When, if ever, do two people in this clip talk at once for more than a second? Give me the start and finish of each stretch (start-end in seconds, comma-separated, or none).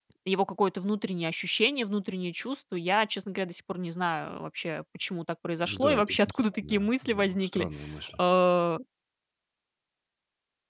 5.6-7.7